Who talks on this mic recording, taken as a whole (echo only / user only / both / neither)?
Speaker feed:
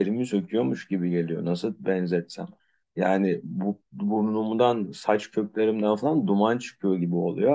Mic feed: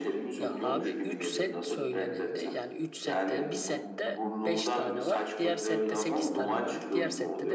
both